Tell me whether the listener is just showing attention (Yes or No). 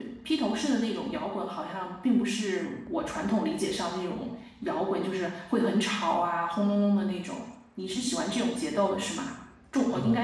Yes